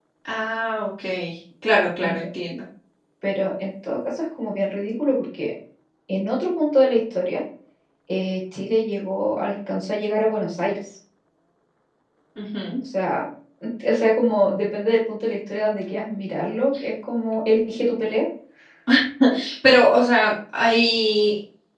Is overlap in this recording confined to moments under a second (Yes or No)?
Yes